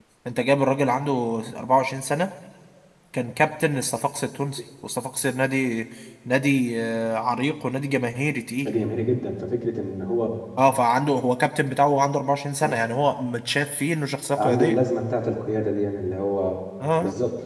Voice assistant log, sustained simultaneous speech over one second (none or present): none